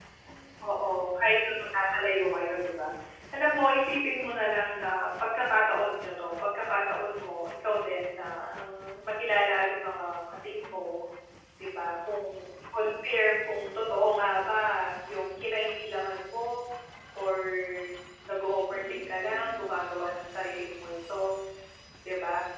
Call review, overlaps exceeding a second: none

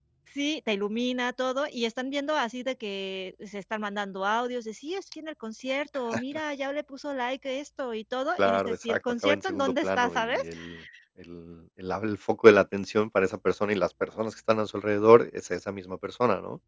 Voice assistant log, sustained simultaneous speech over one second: present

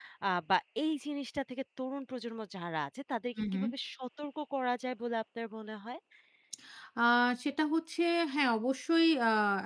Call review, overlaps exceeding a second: none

